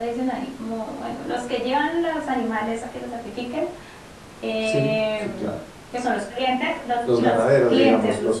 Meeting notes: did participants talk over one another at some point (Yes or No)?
Yes